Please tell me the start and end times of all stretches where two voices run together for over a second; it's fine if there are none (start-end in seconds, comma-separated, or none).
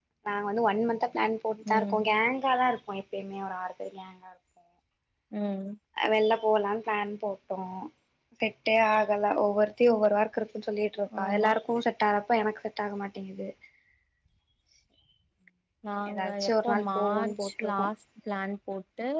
16.1-17.8